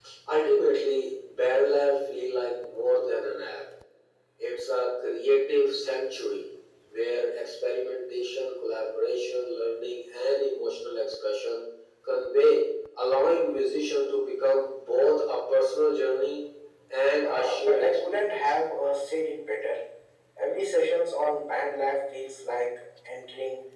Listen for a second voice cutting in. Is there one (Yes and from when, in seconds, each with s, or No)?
Yes, from 17.2 s